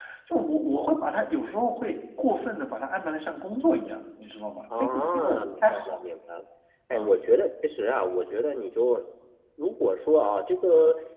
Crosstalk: present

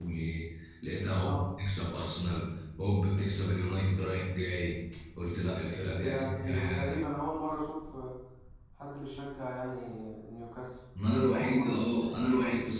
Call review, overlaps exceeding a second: present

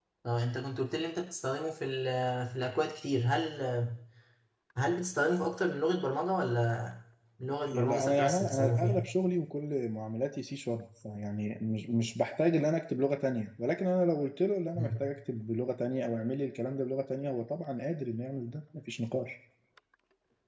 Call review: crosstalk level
present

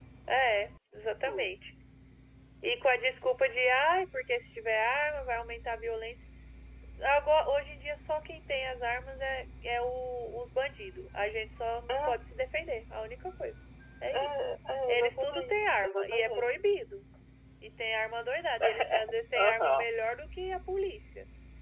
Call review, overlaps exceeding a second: present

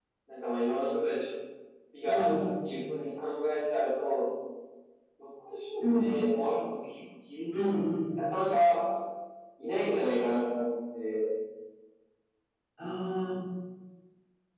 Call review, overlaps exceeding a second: none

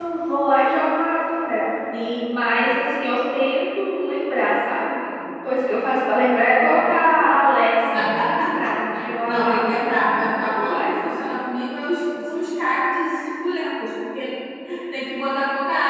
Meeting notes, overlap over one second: present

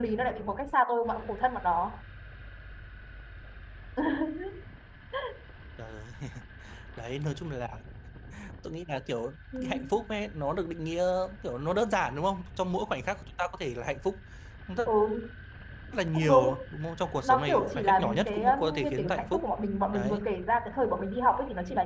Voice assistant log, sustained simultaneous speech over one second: present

